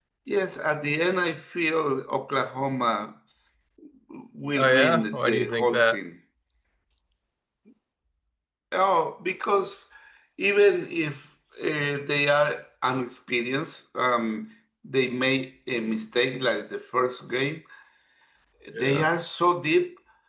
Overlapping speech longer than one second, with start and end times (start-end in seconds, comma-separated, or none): 4.6-6.0